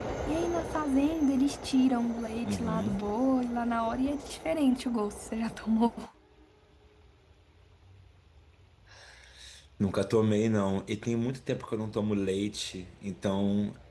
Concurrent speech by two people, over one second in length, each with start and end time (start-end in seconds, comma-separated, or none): none